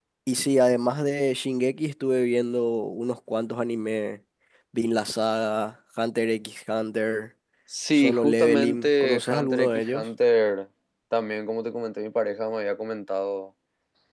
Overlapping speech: Yes, from 7.9 s

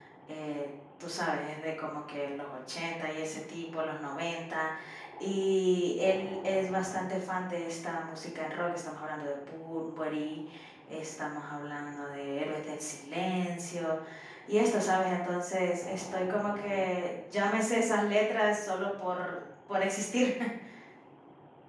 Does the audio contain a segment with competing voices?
No

